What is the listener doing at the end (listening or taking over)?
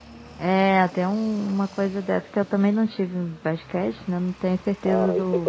taking over